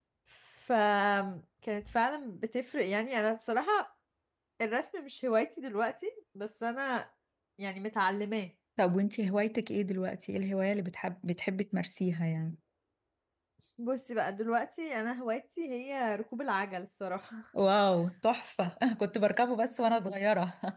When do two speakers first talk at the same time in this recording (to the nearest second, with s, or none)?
none